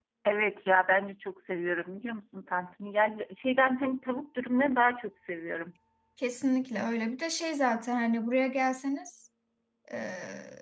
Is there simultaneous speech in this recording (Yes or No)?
No